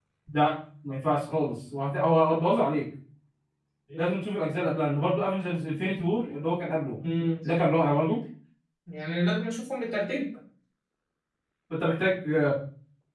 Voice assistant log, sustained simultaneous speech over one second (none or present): none